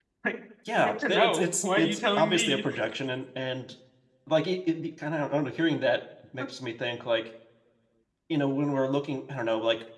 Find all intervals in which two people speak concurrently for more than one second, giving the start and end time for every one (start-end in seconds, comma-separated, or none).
0.8-2.6